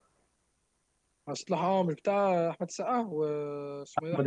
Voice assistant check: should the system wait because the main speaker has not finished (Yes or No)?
No